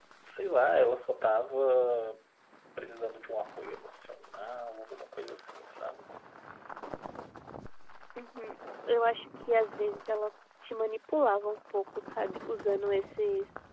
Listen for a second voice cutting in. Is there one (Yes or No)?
No